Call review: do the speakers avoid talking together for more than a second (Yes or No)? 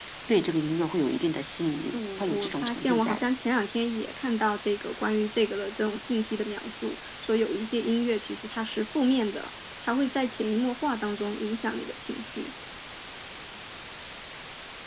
No